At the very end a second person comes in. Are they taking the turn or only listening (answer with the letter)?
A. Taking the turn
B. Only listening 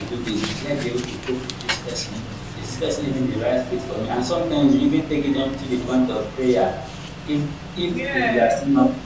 B